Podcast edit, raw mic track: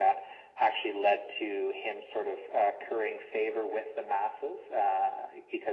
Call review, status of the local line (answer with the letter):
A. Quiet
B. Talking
A